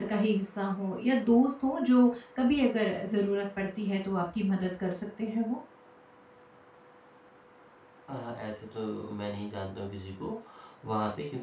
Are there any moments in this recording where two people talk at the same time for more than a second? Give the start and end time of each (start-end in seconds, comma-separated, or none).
none